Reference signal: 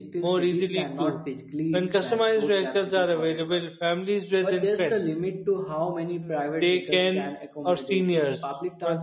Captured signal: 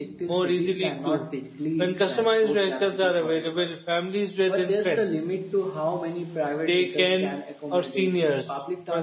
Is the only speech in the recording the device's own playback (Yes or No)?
Yes